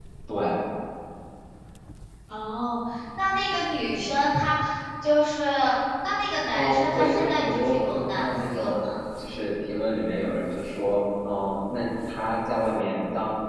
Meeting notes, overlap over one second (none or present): present